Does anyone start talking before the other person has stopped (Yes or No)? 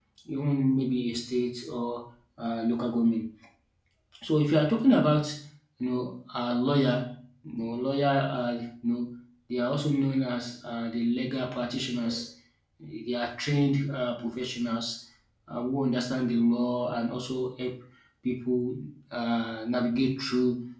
No